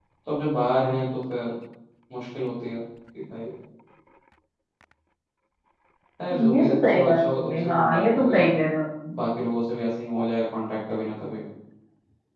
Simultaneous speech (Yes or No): Yes